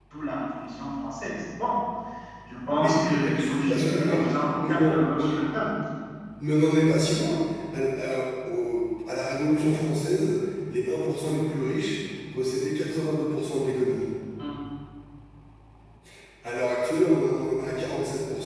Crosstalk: present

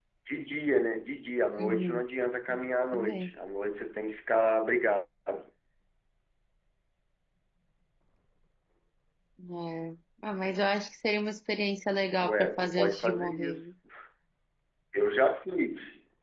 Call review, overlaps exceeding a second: present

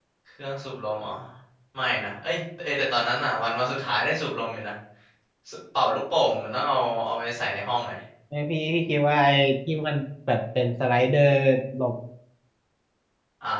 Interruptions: none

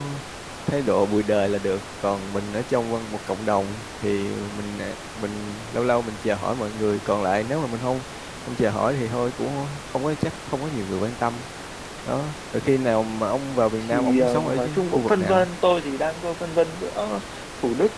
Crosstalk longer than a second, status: present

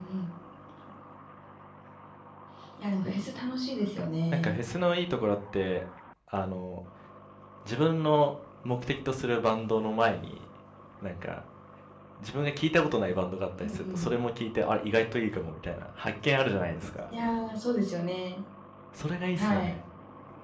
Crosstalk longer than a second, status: none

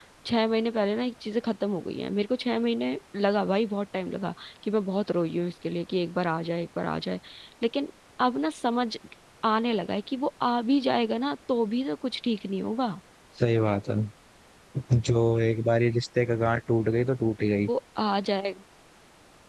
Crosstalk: none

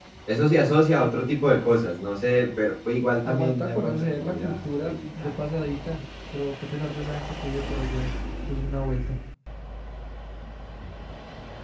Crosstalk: present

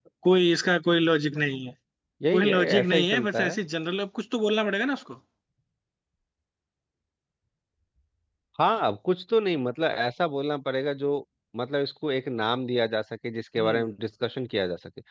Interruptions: present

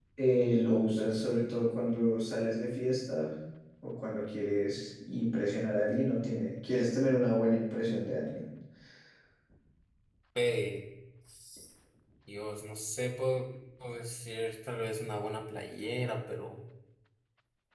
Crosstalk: none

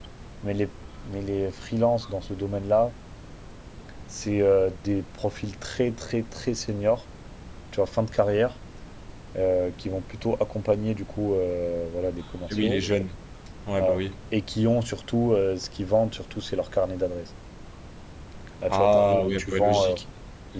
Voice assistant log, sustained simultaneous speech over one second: present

